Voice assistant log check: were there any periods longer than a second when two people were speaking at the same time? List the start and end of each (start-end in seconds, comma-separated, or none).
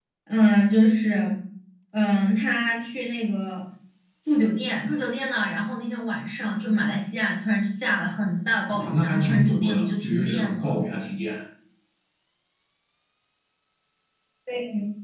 8.7-10.8